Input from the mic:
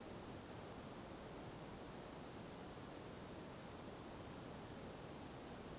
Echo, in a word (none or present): none